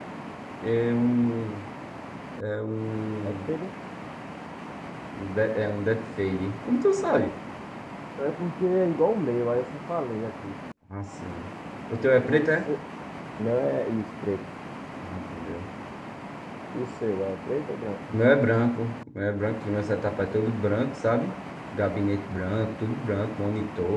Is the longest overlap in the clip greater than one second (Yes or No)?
No